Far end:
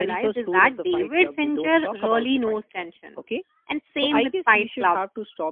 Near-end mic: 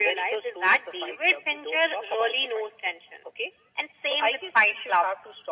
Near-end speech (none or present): none